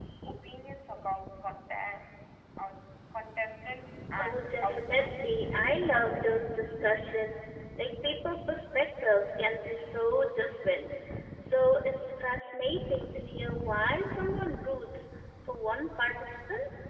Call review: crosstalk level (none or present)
present